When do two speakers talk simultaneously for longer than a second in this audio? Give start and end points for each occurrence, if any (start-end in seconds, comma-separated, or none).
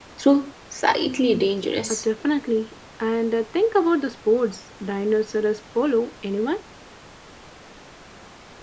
none